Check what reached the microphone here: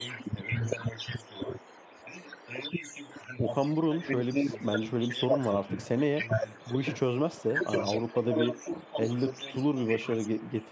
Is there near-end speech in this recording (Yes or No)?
Yes